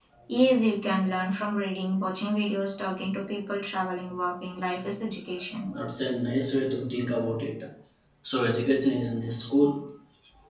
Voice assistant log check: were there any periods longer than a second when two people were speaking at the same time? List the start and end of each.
none

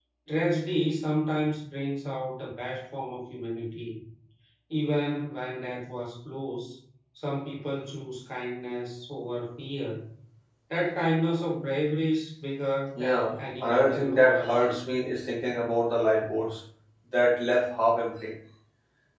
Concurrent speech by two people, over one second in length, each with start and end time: 13.0-14.7

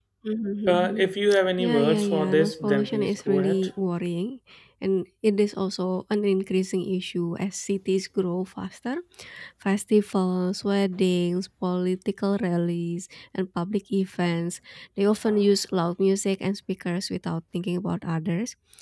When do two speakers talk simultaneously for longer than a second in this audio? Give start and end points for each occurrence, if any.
1.6-3.7

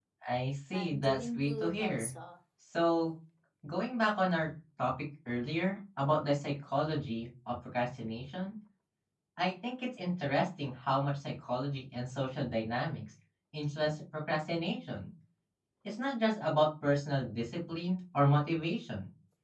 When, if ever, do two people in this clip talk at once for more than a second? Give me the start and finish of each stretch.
0.7-2.1

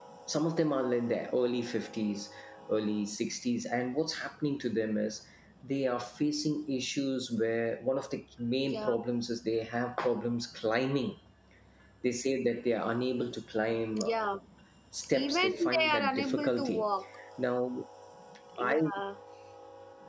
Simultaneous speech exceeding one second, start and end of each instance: 15.1-16.9

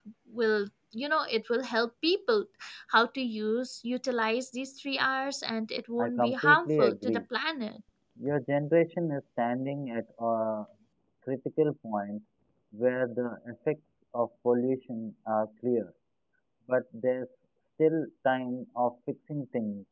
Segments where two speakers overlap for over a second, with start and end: 6.0-7.2

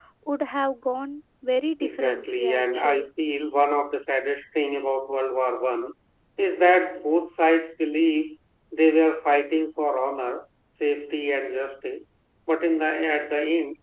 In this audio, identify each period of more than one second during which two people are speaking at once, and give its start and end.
1.8-3.1

